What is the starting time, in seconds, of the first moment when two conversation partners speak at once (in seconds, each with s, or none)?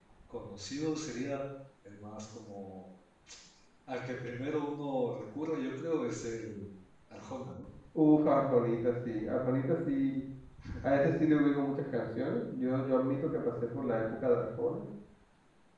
none